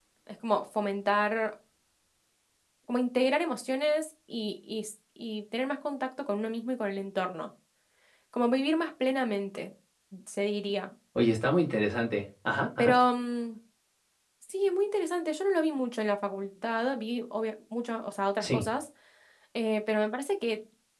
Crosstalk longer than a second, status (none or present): none